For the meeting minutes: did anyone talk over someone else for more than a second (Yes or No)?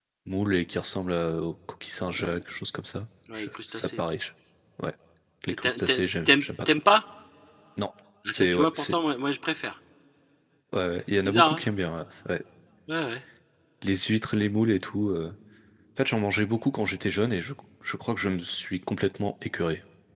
Yes